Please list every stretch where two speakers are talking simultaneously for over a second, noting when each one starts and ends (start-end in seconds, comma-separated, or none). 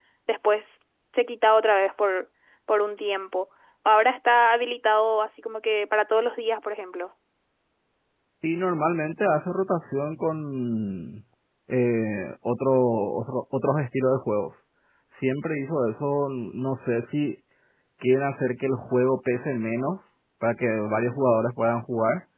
none